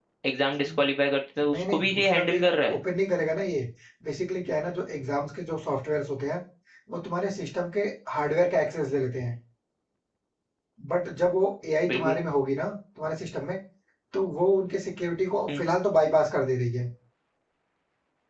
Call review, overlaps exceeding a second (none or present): present